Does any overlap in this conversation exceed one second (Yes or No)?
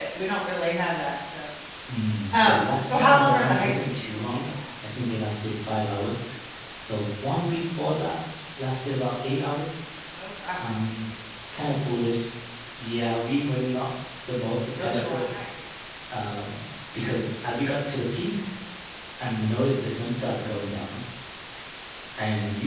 Yes